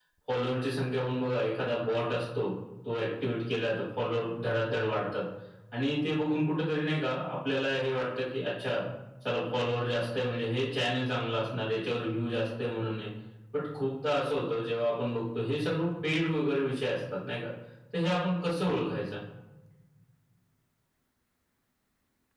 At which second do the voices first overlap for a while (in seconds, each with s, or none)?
none